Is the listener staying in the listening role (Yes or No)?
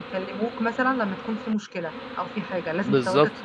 No